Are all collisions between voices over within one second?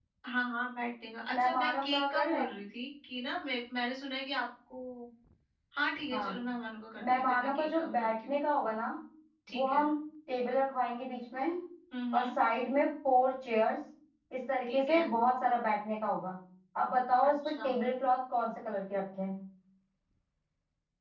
No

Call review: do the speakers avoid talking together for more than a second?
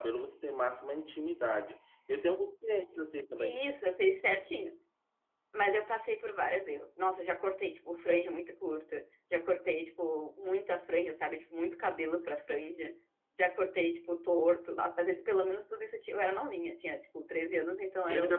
Yes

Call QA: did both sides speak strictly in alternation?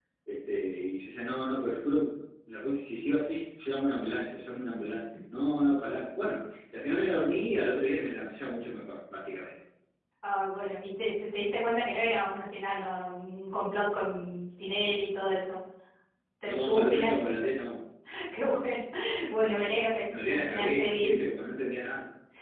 No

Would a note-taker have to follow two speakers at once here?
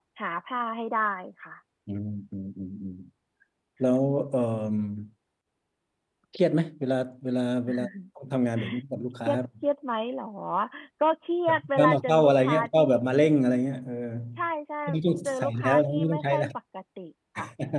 Yes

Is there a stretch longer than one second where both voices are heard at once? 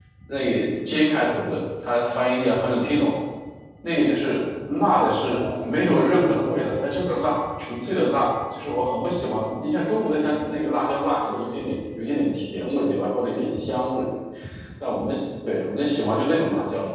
No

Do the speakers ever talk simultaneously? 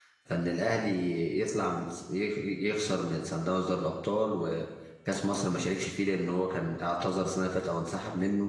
No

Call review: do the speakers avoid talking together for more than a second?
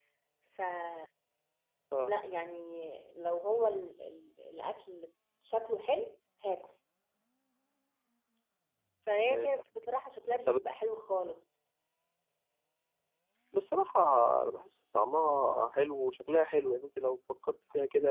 Yes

